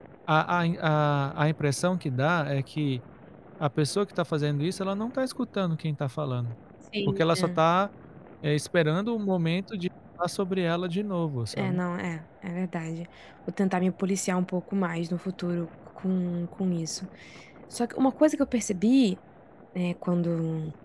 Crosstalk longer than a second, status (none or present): none